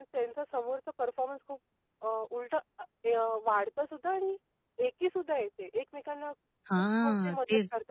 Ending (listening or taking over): taking over